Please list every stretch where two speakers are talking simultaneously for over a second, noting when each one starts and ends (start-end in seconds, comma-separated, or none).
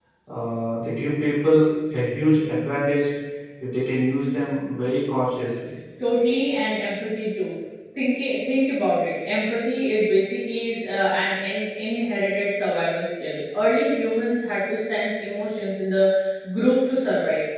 none